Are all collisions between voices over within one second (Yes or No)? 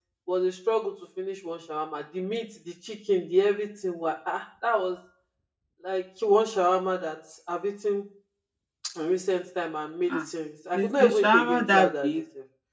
No